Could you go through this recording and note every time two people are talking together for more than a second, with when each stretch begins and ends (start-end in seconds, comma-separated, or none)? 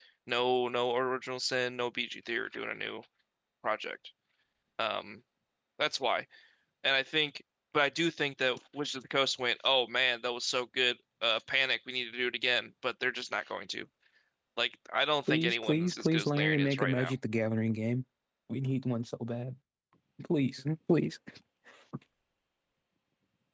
15.3-17.1